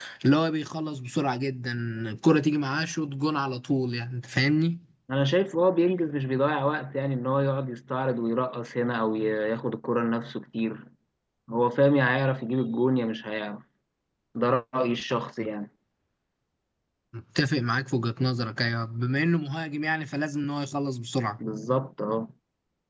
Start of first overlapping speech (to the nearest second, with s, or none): none